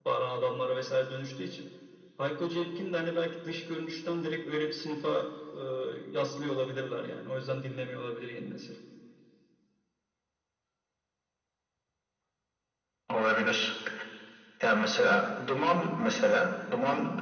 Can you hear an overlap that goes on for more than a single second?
No

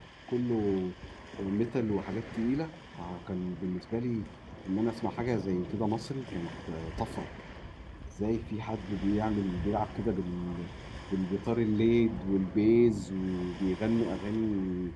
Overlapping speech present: No

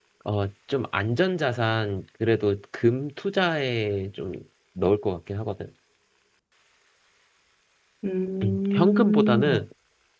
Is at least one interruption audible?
Yes, from 8.4 s

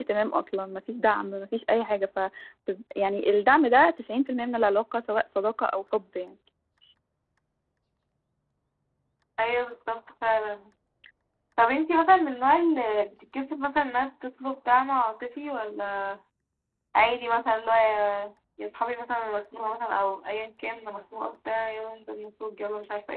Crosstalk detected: No

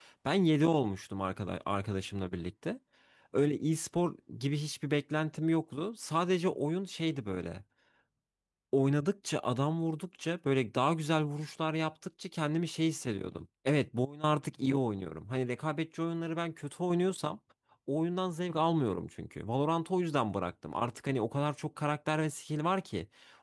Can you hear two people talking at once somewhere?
No

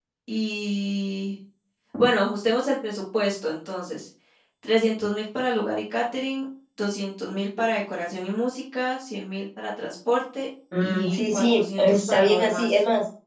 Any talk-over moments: Yes, from 10.7 s

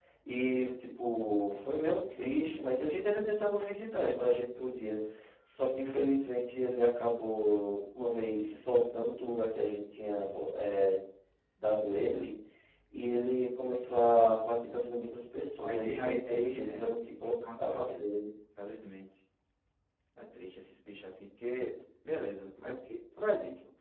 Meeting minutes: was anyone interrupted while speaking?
Yes, from 15.6 s

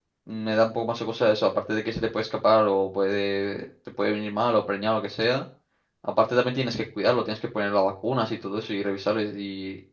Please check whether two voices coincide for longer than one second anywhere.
No

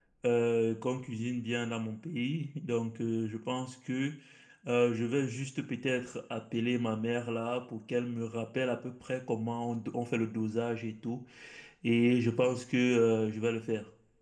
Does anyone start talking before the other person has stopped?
No

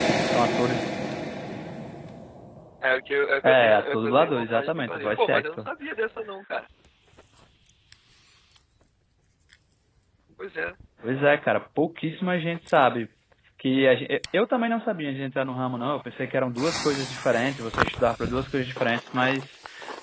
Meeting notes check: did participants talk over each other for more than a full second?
Yes, from 3.4 s

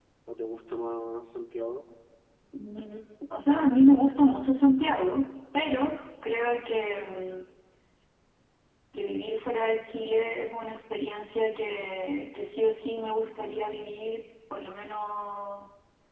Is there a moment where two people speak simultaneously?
No

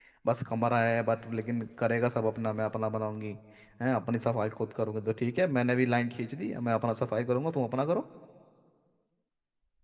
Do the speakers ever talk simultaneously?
No

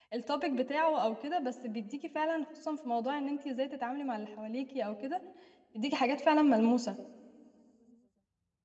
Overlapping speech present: No

